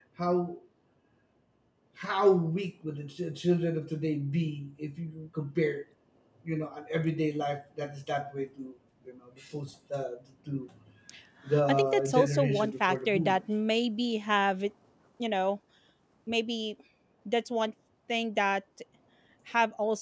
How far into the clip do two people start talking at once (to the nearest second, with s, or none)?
12 s